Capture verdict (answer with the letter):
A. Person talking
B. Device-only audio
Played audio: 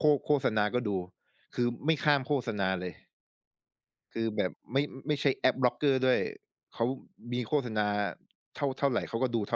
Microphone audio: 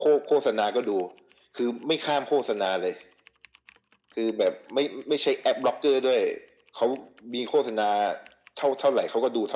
B